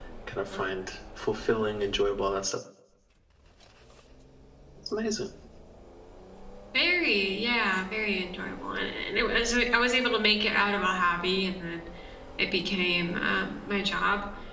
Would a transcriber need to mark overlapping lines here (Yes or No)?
No